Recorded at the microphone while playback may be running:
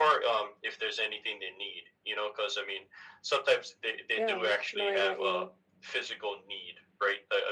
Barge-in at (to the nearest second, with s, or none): 4 s